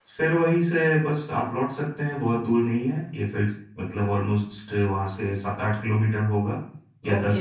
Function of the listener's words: taking over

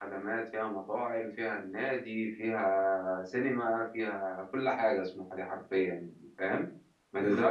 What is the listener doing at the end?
listening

